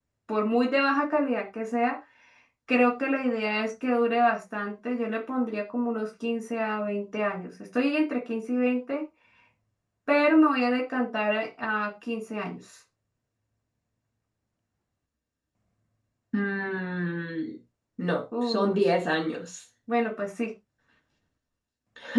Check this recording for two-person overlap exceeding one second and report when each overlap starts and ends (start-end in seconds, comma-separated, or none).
none